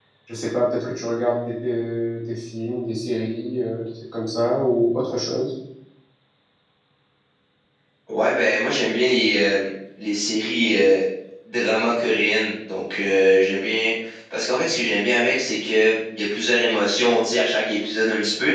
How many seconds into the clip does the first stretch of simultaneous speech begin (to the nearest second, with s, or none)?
none